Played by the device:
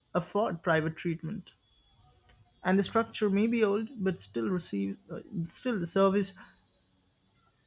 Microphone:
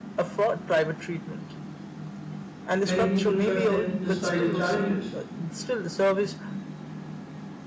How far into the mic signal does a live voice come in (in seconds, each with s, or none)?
2.8 s